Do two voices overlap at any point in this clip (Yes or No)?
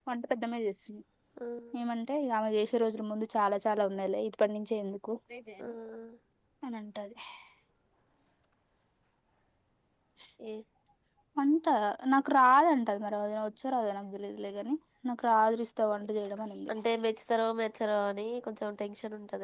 No